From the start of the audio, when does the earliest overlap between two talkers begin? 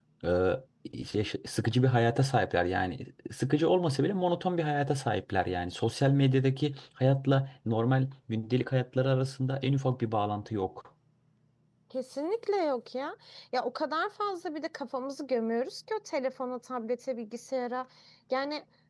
none

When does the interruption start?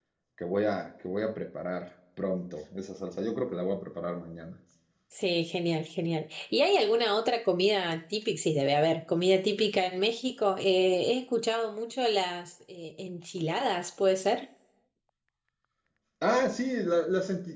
none

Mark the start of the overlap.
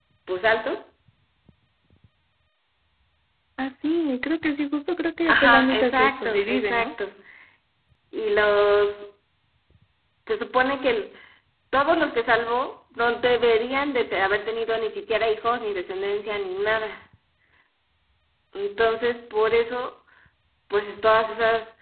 5 s

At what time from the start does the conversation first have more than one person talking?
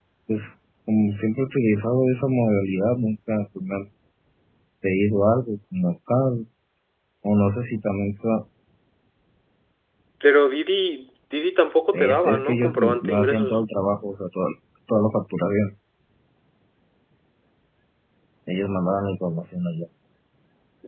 12 s

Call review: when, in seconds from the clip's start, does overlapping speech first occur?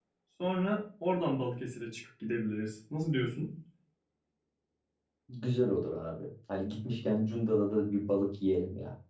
none

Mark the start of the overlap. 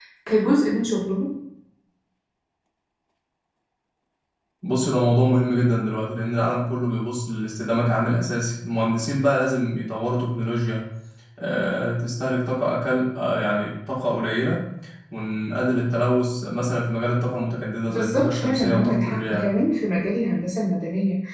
18 s

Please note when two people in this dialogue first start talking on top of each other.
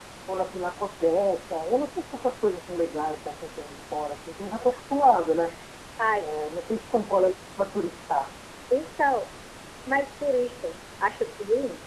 none

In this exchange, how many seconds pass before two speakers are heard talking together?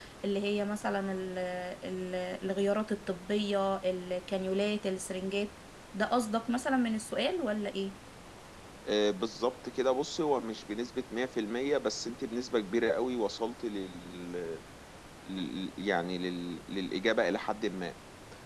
none

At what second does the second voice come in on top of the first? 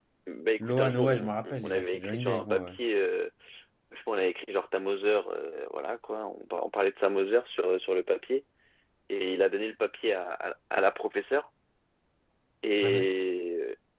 1 s

